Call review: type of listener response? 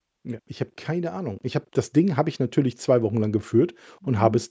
listening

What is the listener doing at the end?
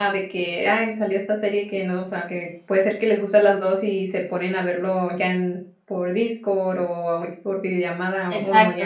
taking over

